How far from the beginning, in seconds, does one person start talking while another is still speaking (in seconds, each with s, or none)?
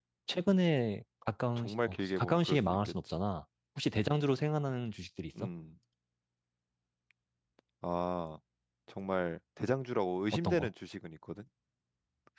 1.6 s